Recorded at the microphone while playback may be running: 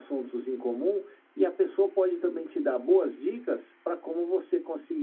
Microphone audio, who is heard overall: echo only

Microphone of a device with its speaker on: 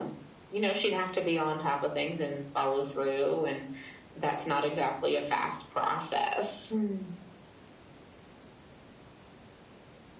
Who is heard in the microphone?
echo only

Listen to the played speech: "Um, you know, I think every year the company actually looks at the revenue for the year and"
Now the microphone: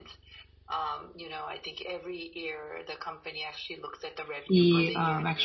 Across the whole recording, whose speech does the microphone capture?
both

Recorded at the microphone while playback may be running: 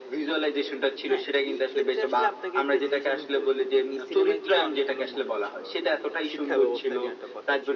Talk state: both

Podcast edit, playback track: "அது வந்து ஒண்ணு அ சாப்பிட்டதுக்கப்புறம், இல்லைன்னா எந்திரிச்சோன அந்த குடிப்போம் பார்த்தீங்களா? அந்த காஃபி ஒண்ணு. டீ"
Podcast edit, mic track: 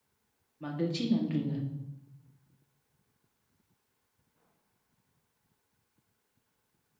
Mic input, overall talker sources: user only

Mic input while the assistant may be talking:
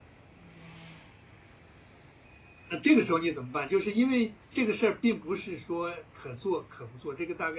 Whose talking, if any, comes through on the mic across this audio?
user only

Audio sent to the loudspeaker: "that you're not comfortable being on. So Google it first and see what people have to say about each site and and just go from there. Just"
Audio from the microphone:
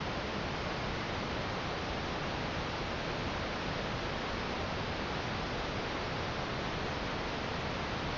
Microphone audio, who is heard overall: neither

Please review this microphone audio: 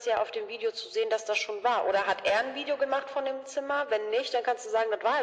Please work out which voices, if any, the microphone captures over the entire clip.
echo only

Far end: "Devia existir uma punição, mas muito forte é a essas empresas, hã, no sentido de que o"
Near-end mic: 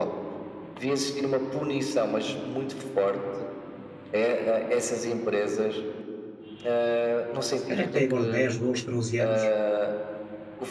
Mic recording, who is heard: both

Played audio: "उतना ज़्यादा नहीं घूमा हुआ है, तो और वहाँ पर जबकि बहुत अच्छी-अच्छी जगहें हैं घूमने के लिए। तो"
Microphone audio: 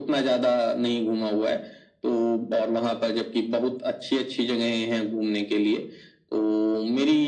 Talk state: echo only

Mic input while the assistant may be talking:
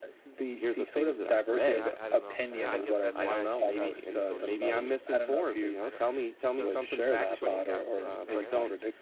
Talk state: both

